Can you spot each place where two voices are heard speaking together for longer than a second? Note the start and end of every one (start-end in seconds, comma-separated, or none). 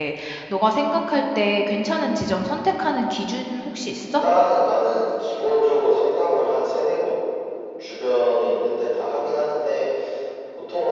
none